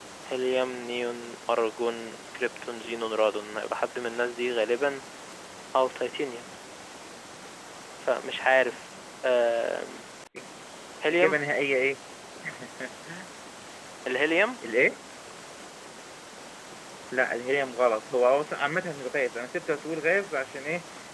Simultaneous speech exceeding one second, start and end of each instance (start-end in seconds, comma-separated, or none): none